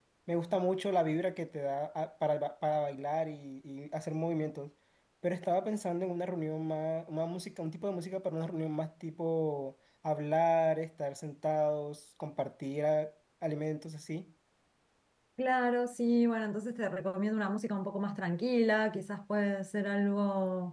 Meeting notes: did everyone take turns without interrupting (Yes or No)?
Yes